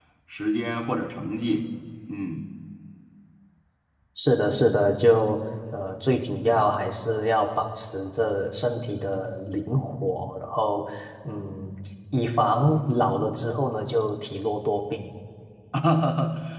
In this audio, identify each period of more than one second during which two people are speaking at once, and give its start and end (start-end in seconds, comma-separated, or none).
none